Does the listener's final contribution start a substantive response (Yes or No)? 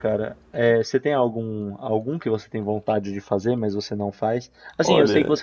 No